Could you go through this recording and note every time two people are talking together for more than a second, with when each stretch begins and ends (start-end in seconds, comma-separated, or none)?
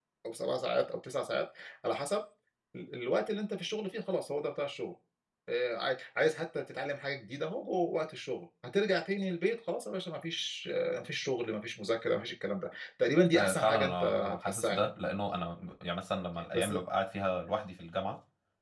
13.3-14.9